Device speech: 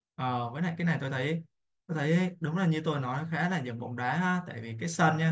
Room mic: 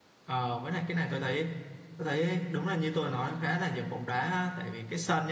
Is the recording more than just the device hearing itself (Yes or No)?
No